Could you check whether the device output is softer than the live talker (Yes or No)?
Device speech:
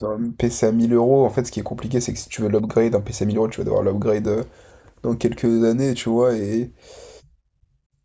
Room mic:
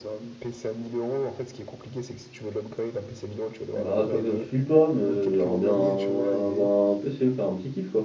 Yes